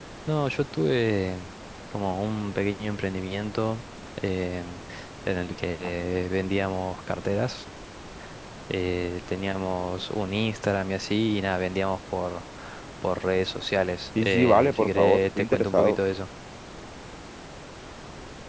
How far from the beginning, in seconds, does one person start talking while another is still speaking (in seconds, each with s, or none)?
14.2 s